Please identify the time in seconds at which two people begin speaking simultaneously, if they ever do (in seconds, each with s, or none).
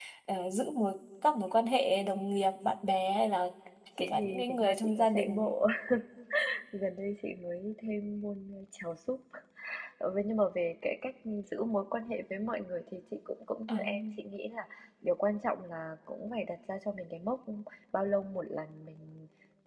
4.0 s